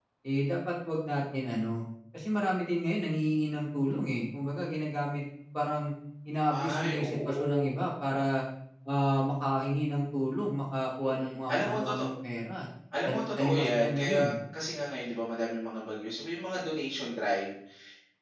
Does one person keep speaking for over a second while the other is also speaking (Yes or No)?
Yes